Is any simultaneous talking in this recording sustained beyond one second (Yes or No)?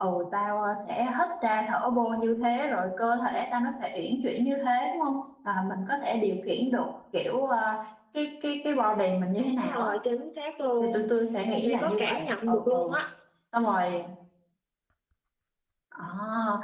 Yes